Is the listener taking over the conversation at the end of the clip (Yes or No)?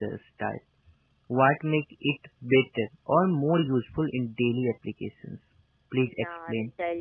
Yes